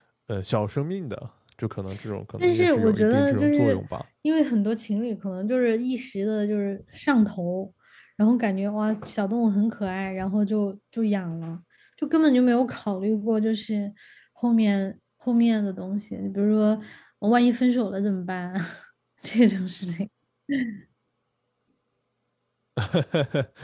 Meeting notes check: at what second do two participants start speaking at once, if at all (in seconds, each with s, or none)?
2.4 s